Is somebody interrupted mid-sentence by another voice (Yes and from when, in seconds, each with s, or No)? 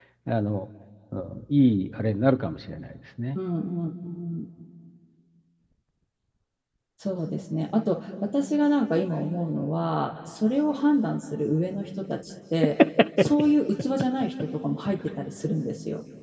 No